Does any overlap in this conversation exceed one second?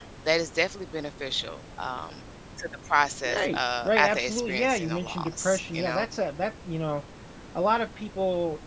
Yes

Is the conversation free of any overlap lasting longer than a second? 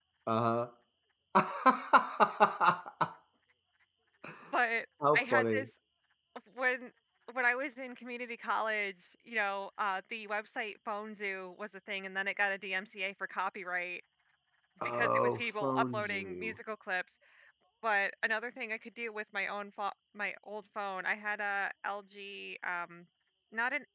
No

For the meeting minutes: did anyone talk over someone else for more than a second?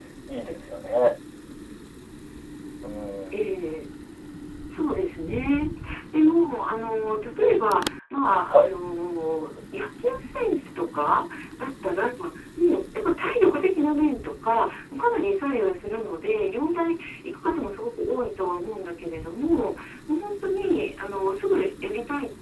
No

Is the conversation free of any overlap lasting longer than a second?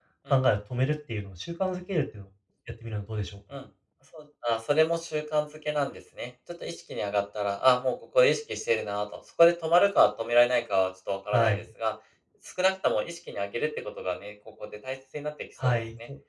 Yes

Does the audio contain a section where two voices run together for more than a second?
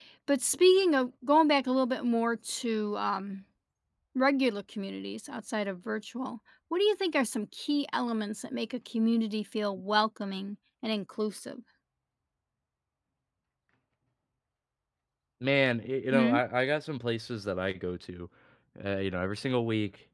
No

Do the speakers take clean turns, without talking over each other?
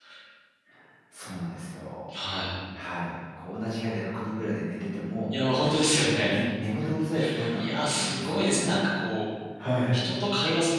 No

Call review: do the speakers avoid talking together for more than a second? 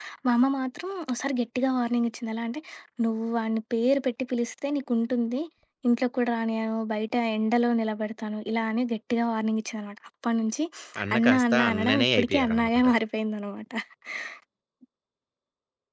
No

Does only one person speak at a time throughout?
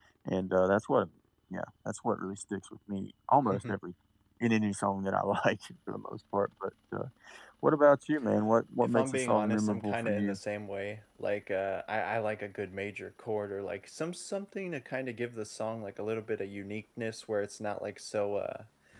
No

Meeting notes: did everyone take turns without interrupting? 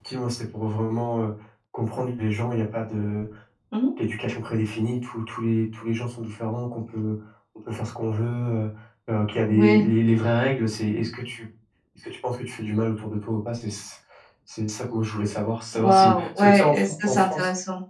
No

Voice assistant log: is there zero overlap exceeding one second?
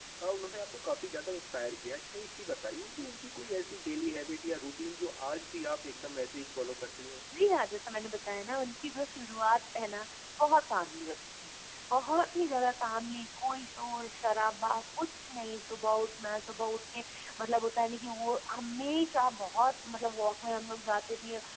Yes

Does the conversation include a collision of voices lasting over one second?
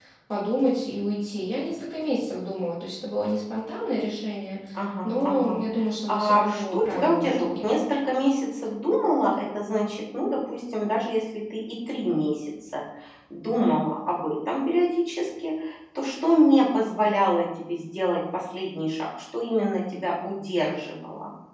Yes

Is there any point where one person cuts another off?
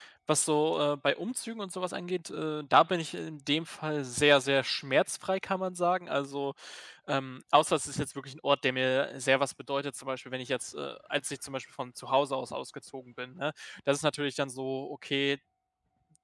No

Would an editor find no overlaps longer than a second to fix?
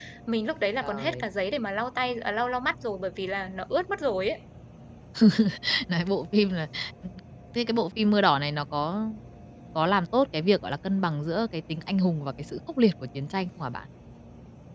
Yes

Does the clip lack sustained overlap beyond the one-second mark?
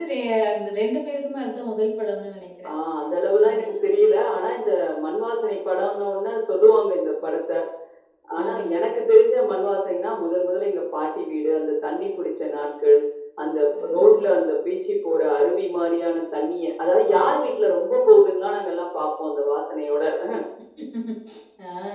Yes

